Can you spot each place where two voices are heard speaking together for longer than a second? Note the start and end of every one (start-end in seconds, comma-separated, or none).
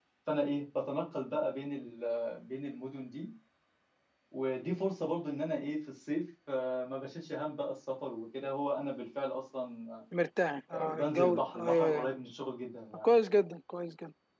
10.7-12.1